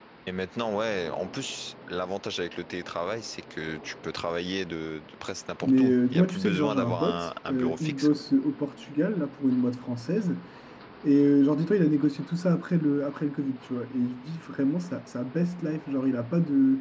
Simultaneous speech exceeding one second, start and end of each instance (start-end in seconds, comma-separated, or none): 5.6-8.2